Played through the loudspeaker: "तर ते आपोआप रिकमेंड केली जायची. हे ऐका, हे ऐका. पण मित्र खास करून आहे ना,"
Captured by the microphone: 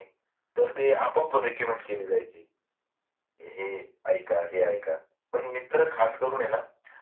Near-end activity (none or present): none